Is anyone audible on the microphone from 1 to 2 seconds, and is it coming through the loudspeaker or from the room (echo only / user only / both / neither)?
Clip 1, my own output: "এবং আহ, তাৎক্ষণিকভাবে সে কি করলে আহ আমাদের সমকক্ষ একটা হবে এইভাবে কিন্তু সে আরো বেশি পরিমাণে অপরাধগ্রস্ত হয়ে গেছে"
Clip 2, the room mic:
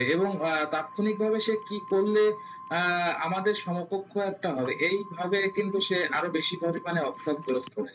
echo only